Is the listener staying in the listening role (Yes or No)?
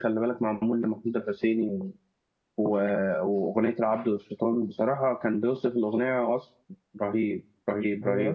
No